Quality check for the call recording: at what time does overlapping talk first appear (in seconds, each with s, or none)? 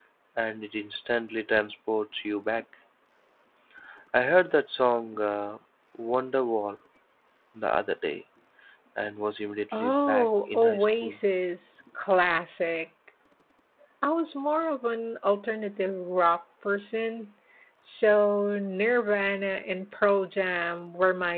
9.8 s